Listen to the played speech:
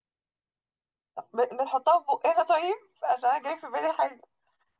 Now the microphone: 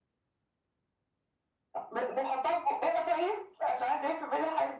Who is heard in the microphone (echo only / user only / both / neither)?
echo only